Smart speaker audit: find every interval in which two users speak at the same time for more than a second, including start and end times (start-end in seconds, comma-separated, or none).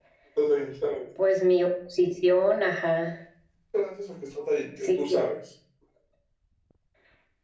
none